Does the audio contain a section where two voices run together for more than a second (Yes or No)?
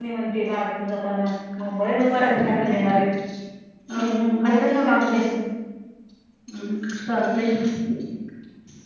Yes